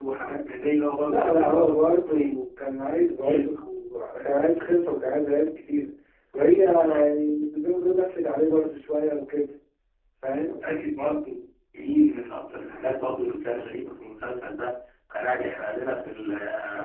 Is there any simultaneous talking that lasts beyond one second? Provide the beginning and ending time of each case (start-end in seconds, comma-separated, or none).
1.1-2.4